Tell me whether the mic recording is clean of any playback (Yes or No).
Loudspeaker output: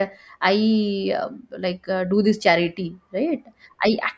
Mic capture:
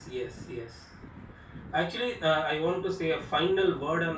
Yes